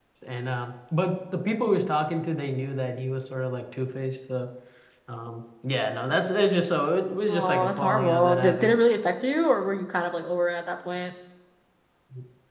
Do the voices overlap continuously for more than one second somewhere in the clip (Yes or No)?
Yes